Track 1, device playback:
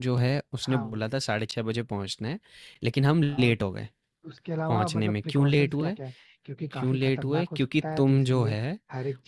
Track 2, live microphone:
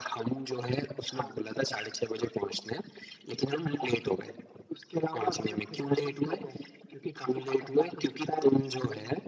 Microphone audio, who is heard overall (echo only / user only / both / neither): echo only